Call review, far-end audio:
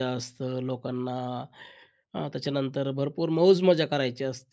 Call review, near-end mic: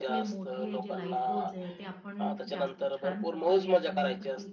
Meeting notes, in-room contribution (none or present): present